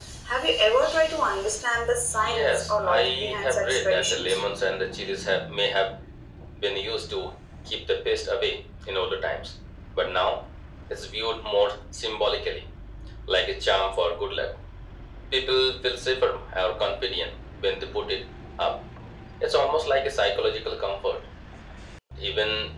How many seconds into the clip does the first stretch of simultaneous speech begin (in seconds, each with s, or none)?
2.2 s